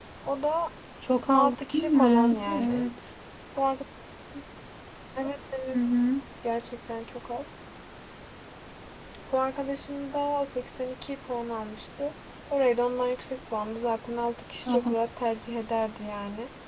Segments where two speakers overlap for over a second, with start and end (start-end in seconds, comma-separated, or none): 1.4-2.9